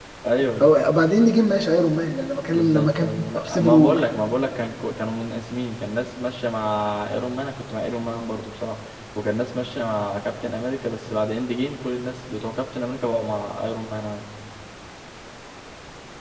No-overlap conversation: No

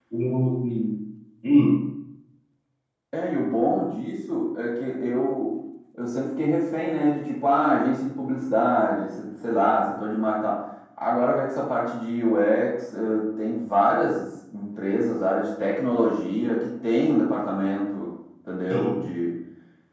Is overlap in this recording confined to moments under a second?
Yes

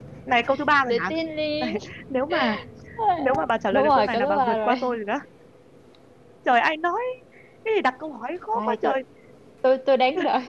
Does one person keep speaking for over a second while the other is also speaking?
Yes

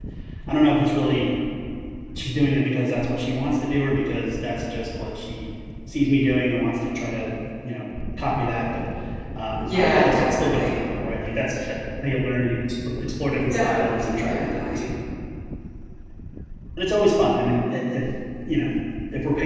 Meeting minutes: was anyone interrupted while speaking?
Yes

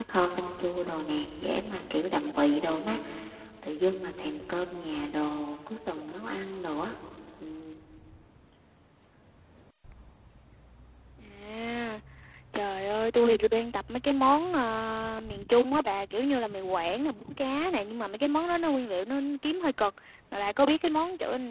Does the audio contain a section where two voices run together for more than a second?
No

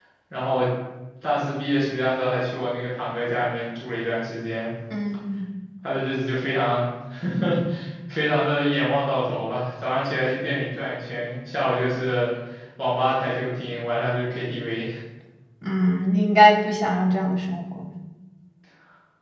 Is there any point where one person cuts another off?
No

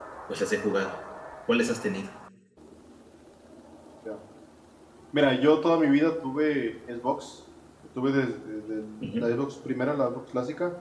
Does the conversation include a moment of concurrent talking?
No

